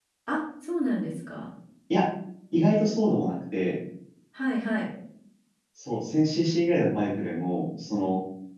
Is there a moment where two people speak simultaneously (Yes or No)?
No